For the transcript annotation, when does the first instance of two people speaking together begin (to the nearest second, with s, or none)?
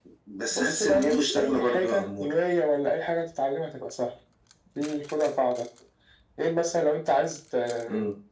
1 s